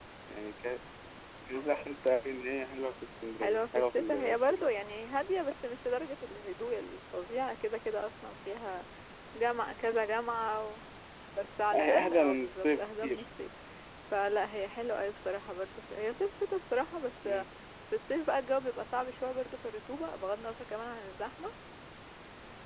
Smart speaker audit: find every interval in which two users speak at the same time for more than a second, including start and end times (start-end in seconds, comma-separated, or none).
3.4-4.7, 11.7-13.2